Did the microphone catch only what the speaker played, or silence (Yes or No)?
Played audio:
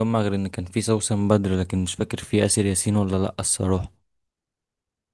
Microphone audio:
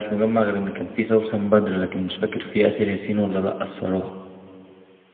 Yes